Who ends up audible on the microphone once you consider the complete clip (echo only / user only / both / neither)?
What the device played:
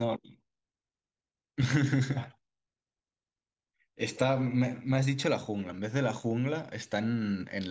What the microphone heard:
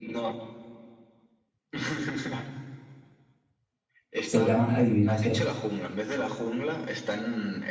both